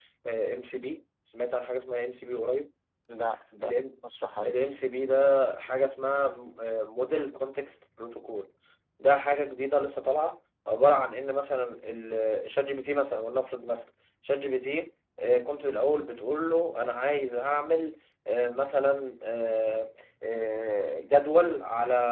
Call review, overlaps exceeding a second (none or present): none